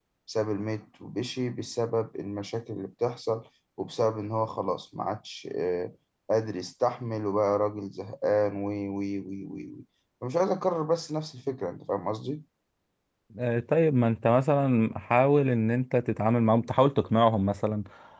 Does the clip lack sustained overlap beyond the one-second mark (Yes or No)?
Yes